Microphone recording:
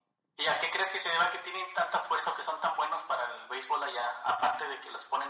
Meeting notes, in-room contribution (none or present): none